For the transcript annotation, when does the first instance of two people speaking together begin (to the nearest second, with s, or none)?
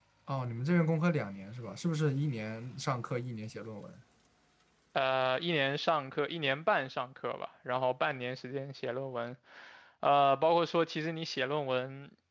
none